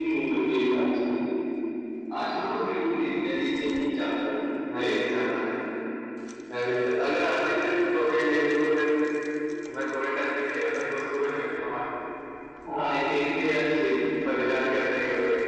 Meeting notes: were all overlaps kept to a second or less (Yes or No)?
Yes